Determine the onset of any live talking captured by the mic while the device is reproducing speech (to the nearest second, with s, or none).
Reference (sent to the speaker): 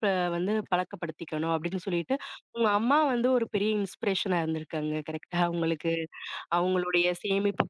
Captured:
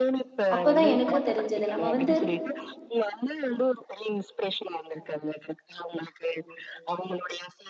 1 s